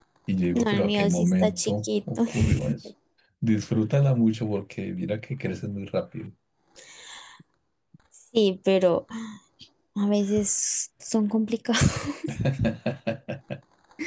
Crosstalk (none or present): present